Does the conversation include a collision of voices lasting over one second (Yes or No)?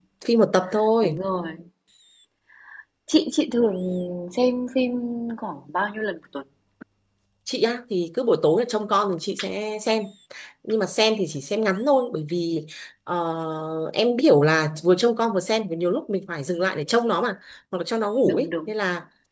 No